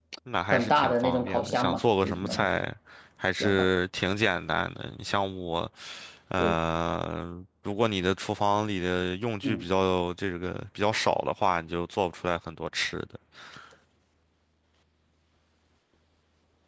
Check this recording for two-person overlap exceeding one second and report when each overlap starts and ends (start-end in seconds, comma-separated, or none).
0.5-2.5